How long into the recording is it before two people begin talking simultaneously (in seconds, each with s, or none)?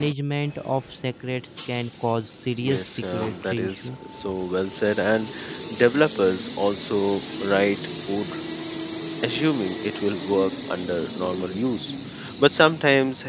2.5 s